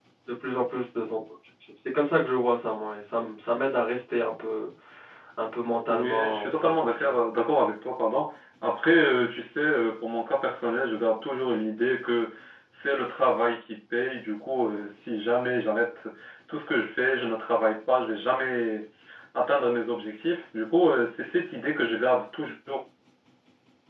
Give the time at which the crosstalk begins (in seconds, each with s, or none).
5.9 s